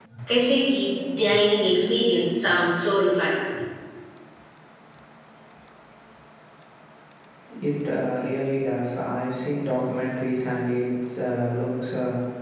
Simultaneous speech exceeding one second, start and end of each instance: none

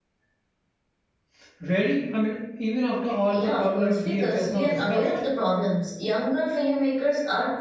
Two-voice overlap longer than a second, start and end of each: 3.3-5.1

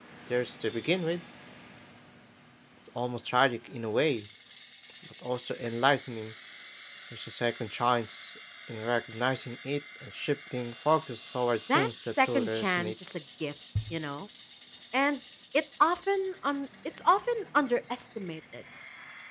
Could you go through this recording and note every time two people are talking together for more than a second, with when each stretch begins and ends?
11.7-12.9

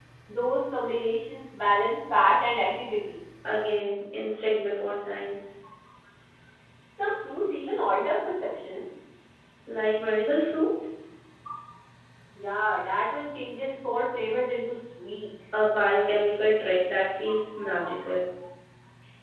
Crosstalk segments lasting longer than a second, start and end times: none

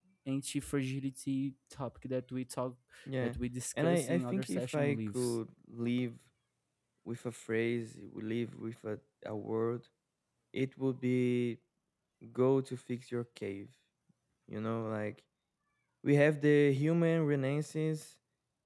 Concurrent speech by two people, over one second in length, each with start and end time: 3.8-5.4

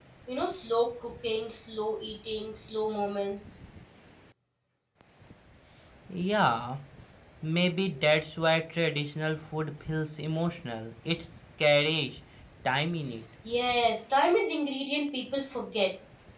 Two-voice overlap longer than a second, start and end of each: none

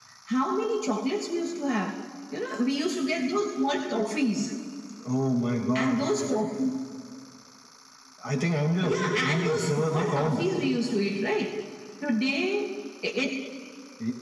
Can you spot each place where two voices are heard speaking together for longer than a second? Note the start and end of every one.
8.8-10.4

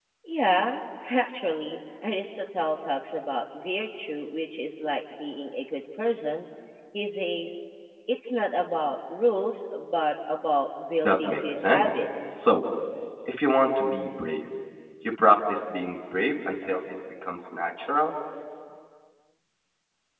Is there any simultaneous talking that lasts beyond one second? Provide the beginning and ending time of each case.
11.0-12.4

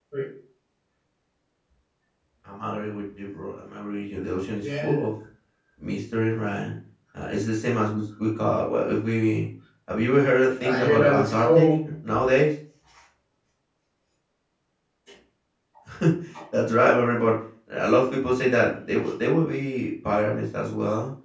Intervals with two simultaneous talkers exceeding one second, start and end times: 10.6-11.9

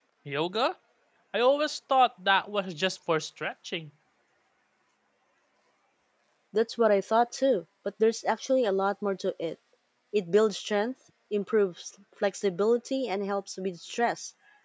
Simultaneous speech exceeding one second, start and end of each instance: none

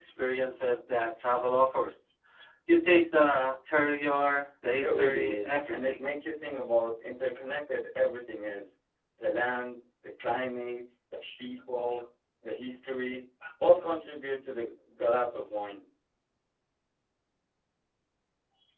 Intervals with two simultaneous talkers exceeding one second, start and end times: 4.8-6.0

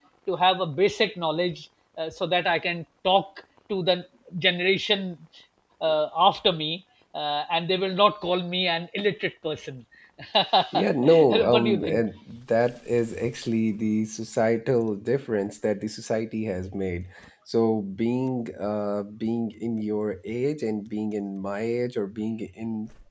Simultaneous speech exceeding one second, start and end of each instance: 10.7-12.0

